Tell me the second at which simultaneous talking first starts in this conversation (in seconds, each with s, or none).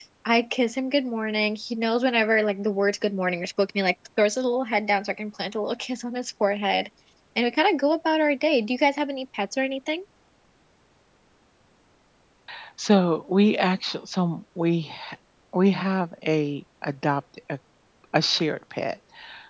none